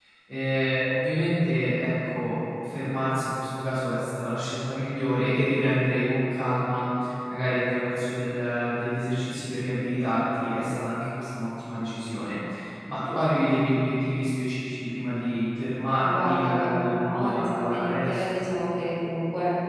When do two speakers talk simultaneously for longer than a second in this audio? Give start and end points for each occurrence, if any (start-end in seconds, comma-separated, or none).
16.0-18.4